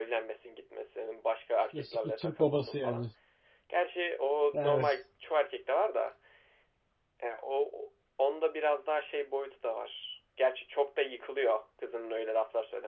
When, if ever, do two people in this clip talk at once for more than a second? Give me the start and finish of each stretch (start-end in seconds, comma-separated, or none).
1.7-3.0